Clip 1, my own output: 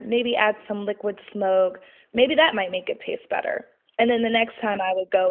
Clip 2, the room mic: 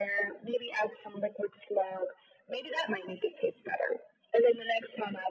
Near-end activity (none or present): none